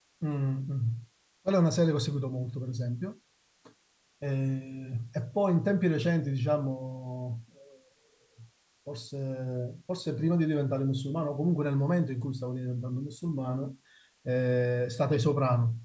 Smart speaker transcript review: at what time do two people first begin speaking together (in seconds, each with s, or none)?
none